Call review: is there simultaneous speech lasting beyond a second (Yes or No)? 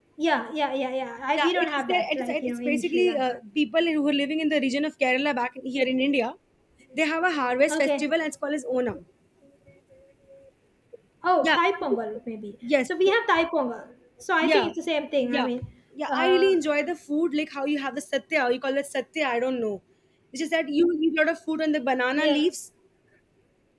Yes